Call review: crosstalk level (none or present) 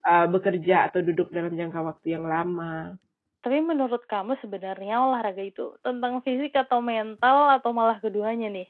none